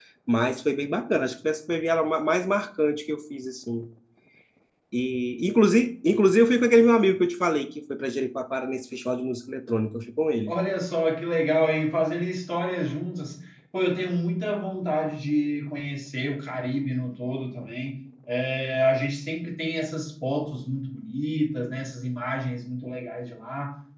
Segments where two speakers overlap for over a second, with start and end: none

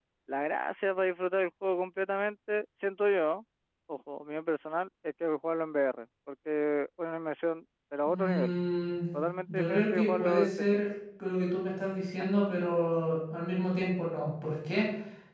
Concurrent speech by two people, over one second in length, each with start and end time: 9.5-10.8

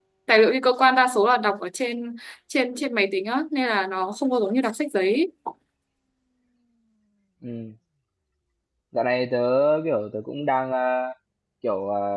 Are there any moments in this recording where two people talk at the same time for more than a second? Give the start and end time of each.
none

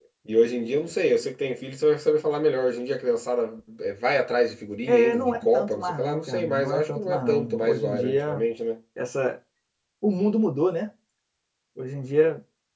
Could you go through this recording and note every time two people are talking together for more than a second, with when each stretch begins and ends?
4.9-8.4

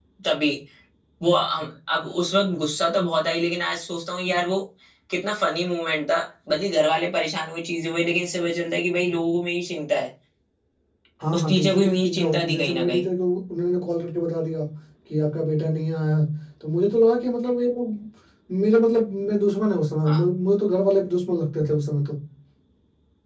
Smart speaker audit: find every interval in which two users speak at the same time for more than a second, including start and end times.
11.4-13.0

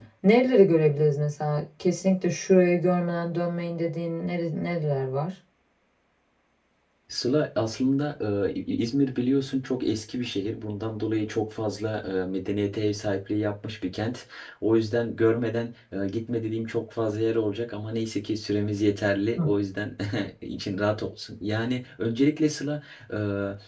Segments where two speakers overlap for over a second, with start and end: none

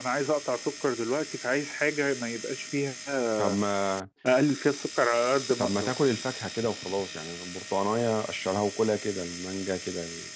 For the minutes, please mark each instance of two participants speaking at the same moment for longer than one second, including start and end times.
none

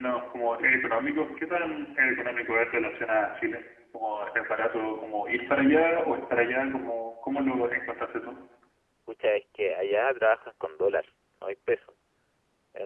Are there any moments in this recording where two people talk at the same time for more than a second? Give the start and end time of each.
none

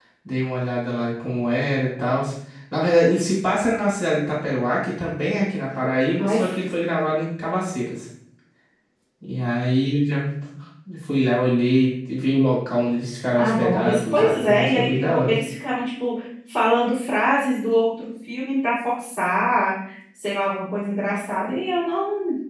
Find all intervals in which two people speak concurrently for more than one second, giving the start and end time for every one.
13.4-15.4

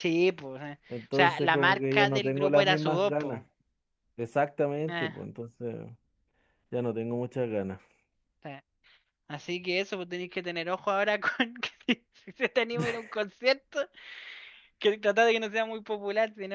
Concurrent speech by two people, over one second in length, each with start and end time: 1.1-3.4

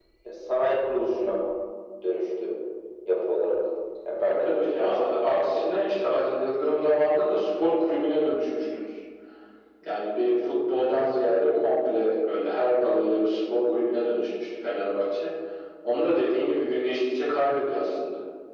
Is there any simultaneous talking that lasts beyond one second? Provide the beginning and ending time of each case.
4.2-5.7

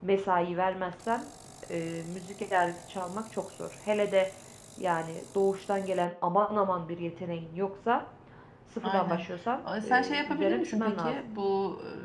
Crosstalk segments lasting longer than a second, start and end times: 9.8-11.2

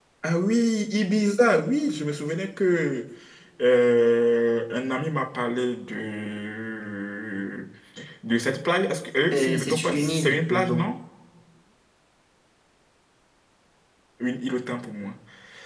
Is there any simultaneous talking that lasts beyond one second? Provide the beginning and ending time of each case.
9.3-10.8

